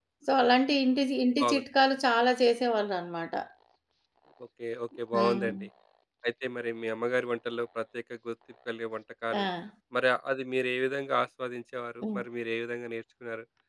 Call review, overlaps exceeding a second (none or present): none